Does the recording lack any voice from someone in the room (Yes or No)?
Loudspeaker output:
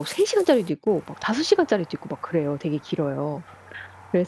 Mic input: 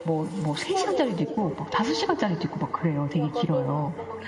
No